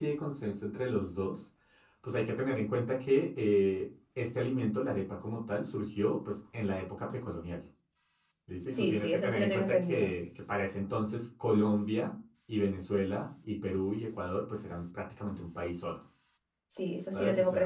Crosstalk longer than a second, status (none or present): present